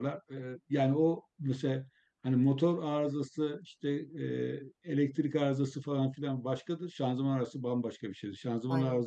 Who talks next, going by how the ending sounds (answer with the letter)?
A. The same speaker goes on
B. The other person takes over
A